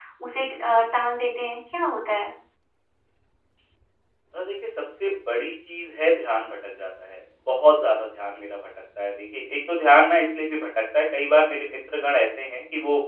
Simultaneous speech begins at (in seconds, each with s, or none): none